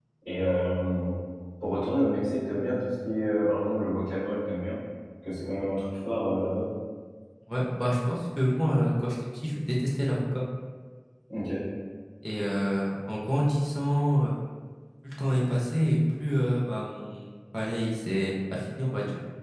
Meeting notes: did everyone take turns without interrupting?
Yes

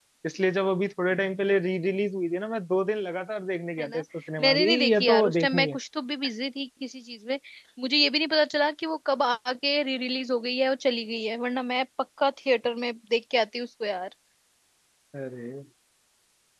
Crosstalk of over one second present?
Yes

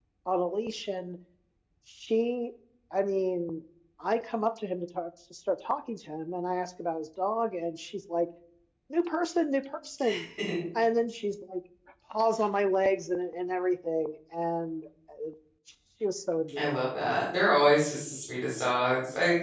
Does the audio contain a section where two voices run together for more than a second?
No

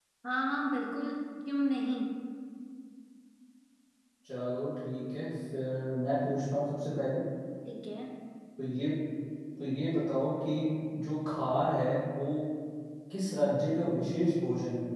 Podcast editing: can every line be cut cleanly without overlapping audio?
Yes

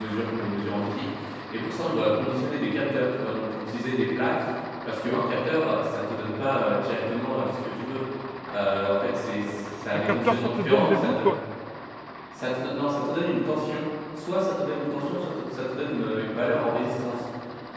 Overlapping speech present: Yes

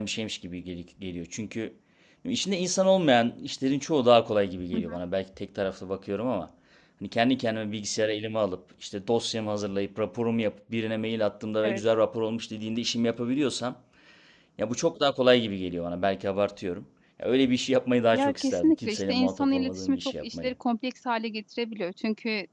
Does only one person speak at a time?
No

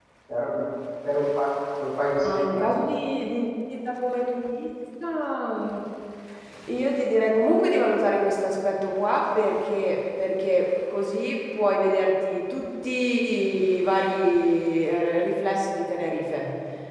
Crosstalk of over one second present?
No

